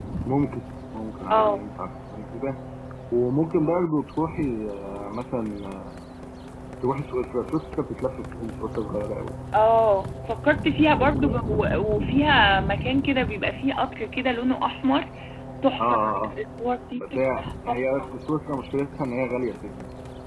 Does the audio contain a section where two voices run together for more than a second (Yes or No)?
Yes